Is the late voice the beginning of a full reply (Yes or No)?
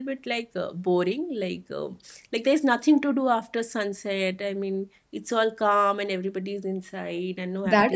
Yes